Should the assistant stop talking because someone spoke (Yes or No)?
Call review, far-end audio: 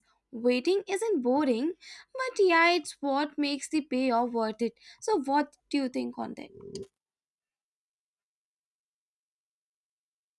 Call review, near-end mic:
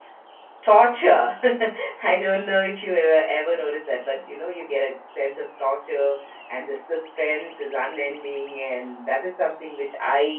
Yes